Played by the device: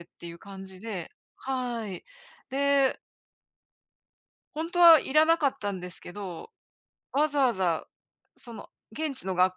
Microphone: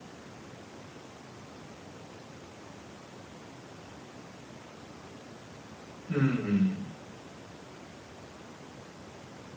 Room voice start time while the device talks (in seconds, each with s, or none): 6.1 s